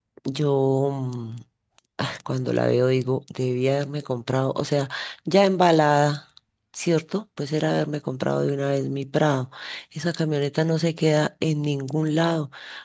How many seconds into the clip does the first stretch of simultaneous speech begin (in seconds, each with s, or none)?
none